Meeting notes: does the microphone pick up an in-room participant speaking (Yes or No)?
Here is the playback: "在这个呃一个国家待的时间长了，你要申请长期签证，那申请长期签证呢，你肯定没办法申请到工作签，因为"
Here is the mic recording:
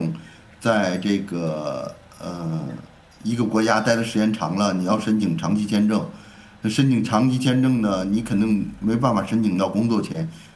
Yes